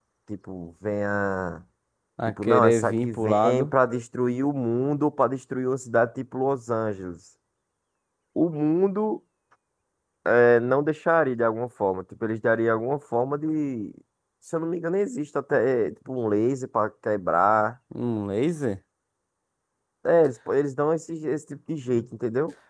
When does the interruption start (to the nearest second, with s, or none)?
2 s